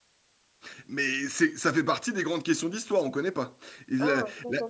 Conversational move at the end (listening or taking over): taking over